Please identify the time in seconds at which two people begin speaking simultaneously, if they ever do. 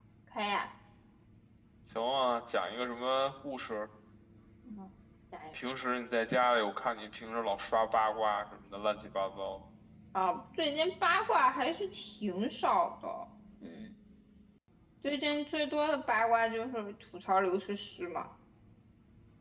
none

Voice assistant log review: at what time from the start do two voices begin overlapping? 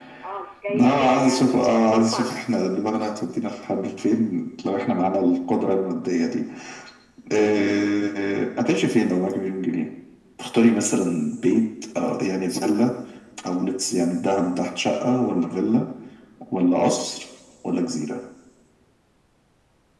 1 s

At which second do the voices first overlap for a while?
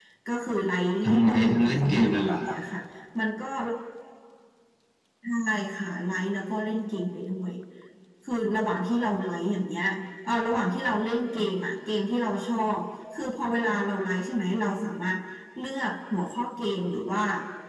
1 s

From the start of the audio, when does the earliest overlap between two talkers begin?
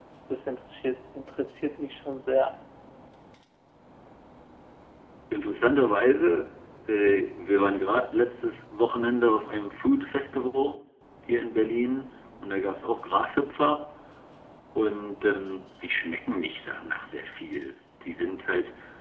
none

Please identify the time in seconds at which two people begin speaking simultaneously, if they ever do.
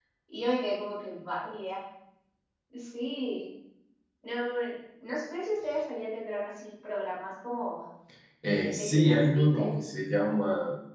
8 s

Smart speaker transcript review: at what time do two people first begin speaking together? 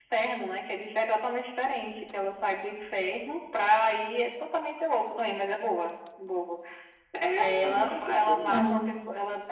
7 s

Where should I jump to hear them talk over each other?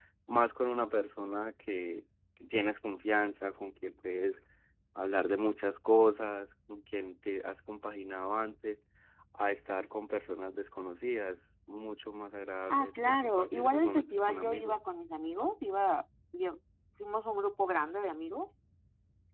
13 s

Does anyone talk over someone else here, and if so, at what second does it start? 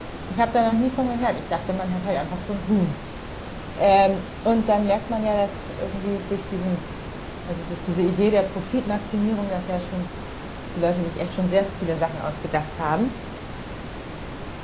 none

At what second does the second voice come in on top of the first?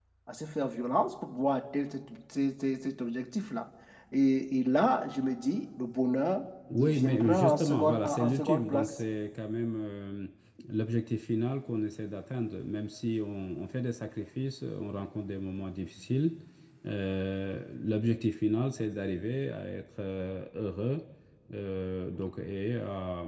7 s

